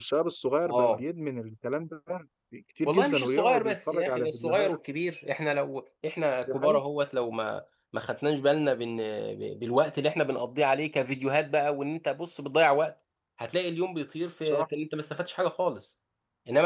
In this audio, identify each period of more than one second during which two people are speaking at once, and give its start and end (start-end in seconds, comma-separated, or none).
2.9-4.7